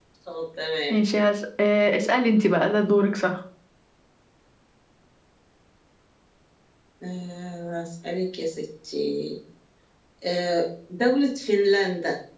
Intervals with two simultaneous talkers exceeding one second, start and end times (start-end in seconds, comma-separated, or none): none